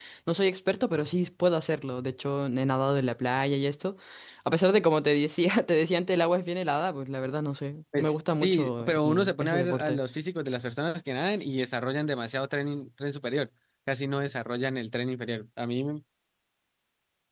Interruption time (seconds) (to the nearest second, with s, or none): 8 s